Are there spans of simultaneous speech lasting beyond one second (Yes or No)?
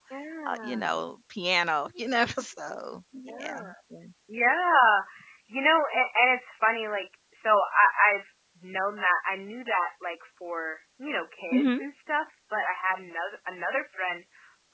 No